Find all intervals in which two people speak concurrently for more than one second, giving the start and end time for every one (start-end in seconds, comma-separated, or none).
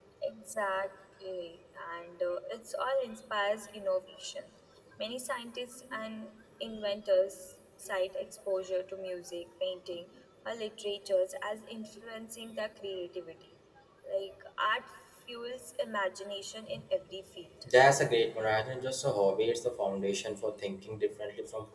none